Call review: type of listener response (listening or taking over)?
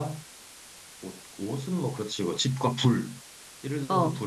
listening